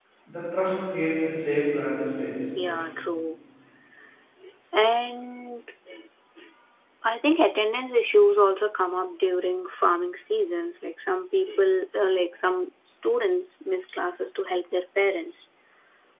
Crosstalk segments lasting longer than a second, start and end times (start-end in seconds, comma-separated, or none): none